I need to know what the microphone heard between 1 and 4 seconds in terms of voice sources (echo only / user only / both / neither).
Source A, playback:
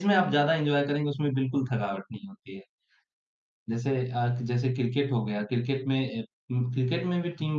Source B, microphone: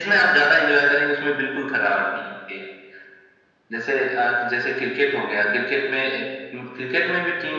echo only